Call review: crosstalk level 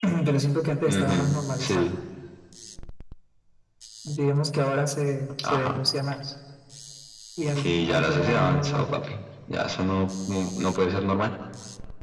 present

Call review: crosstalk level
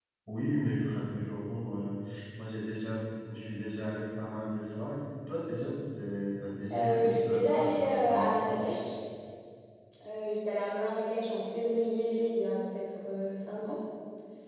present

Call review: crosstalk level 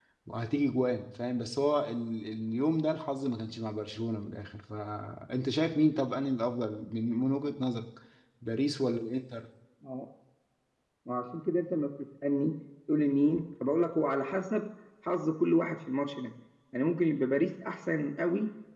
none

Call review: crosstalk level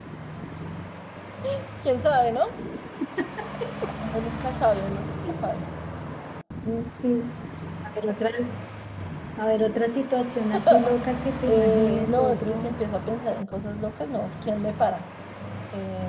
present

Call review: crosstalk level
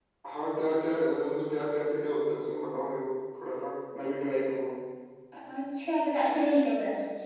none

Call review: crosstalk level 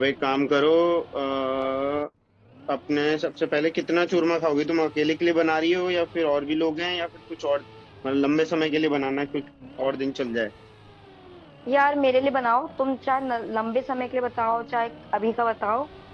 none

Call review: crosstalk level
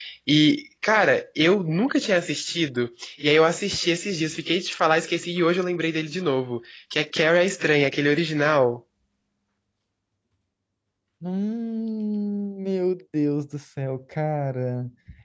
none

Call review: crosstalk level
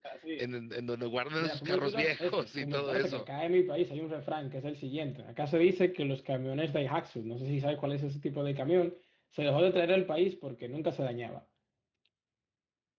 present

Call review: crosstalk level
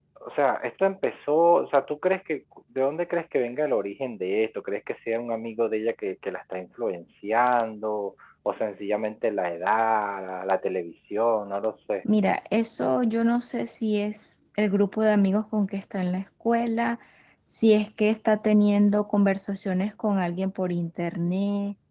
none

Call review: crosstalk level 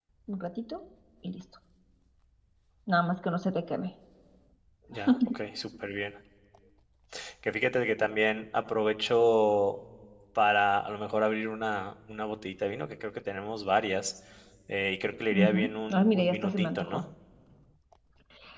present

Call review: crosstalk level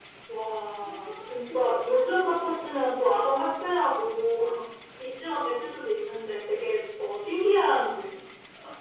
present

